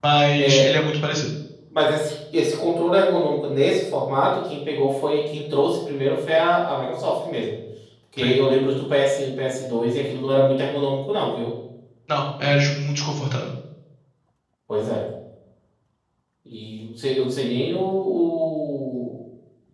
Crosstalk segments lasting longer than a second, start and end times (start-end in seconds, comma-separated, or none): none